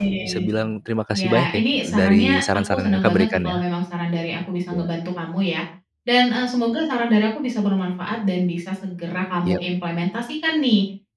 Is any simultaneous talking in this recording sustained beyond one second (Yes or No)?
Yes